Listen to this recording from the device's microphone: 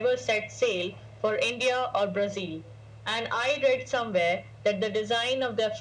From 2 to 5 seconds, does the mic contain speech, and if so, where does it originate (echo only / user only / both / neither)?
echo only